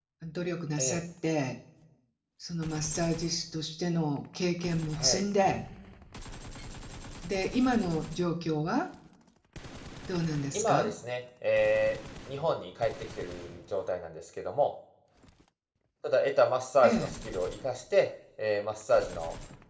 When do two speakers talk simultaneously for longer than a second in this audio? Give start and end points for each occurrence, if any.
none

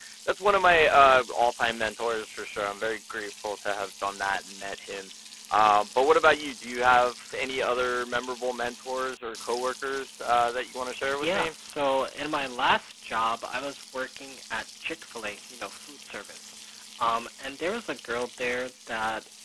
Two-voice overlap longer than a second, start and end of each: none

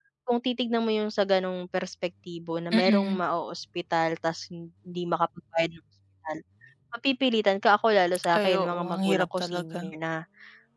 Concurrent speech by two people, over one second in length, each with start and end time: 8.4-9.8

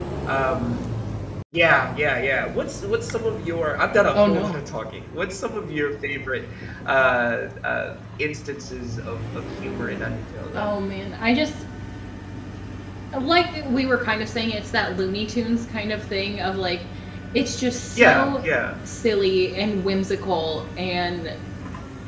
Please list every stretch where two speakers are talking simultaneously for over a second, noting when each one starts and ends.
none

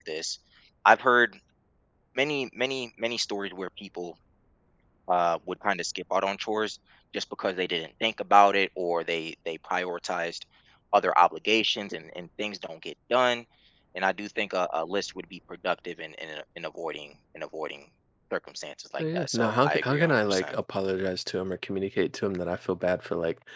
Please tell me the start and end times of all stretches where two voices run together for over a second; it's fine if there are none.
19.0-20.5

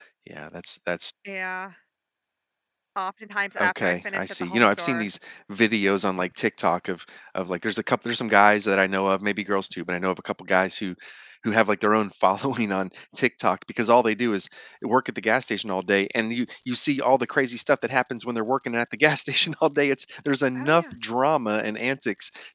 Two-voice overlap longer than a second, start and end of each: 3.6-5.1

